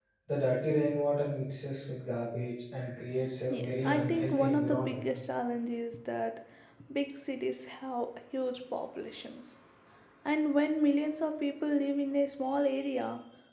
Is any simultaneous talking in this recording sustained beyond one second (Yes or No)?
Yes